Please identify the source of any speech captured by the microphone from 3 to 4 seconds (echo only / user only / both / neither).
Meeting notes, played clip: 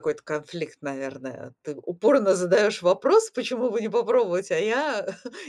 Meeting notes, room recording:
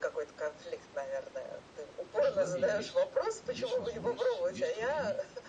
both